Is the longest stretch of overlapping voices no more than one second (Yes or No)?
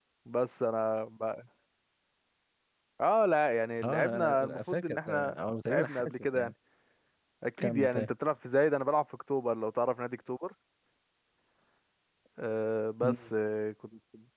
No